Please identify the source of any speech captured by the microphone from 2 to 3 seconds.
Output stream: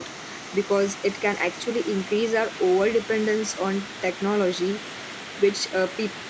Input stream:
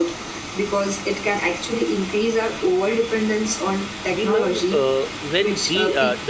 echo only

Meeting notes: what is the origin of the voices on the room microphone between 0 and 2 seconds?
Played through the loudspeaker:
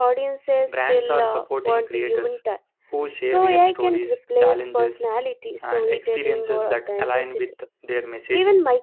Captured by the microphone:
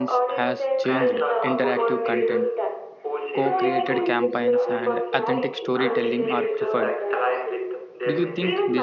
both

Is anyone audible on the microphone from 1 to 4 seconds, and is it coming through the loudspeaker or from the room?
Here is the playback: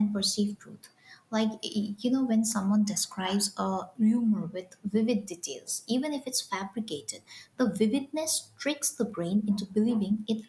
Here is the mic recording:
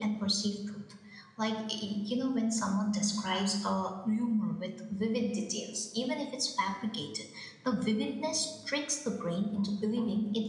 echo only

